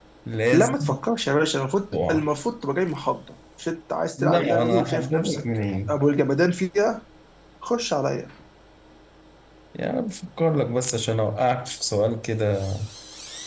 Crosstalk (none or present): present